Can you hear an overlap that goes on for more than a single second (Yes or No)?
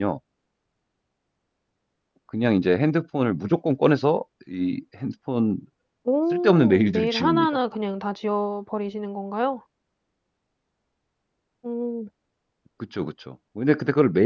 Yes